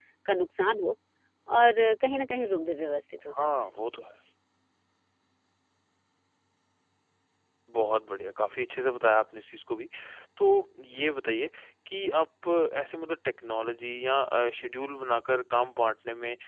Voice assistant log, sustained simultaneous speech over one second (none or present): none